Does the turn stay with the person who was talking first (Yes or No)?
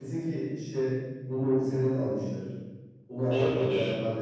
Yes